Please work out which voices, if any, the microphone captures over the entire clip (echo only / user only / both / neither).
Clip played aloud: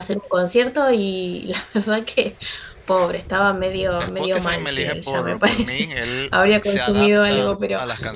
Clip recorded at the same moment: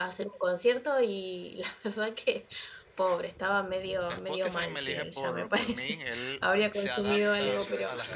both